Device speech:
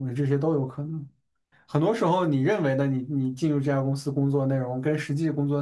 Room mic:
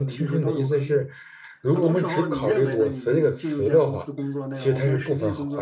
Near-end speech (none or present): present